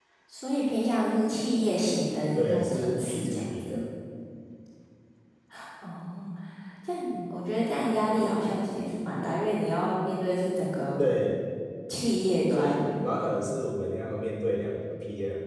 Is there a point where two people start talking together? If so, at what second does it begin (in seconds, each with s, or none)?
2.4 s